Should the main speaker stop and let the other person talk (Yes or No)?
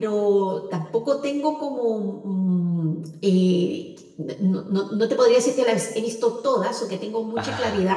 No